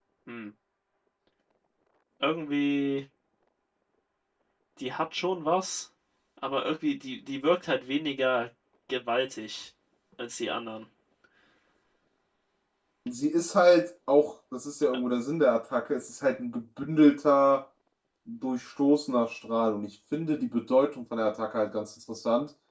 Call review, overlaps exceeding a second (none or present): none